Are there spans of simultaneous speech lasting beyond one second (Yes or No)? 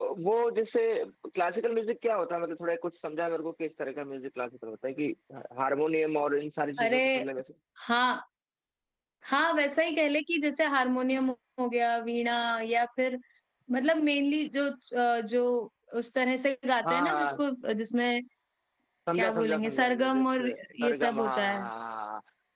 Yes